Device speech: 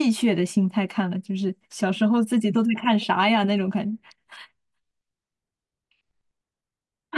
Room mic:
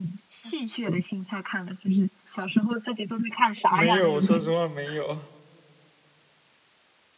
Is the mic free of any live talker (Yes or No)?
No